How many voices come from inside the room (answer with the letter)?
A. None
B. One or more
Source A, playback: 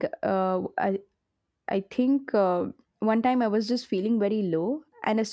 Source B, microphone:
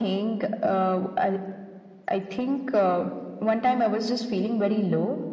A